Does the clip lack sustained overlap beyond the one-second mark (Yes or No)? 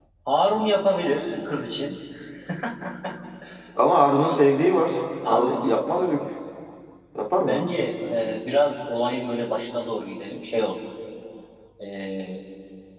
Yes